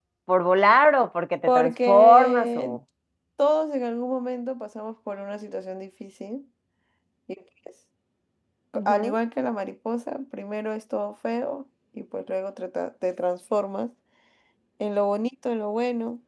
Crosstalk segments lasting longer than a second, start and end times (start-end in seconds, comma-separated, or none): 1.5-2.8